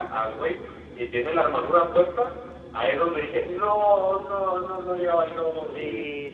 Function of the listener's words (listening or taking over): taking over